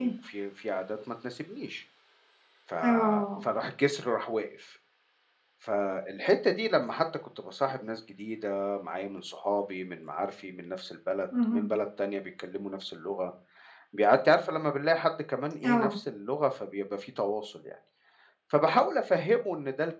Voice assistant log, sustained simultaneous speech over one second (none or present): none